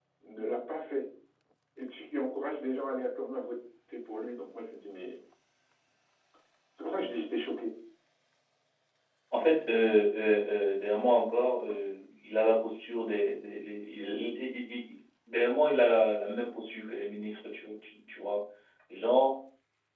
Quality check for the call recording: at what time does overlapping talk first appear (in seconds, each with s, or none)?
none